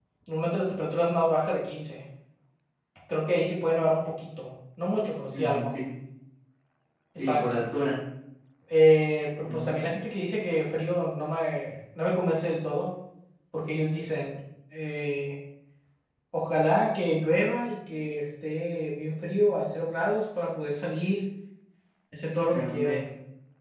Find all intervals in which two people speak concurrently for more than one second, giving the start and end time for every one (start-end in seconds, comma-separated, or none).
none